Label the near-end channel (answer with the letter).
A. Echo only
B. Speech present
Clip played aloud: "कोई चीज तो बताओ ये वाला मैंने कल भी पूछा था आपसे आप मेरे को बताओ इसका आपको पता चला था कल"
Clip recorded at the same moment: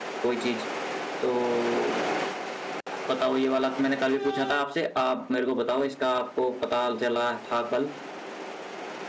A